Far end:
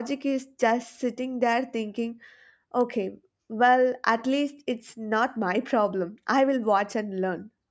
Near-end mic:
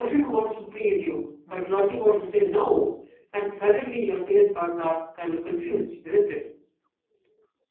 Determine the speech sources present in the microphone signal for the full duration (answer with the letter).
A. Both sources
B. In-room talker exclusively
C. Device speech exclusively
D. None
B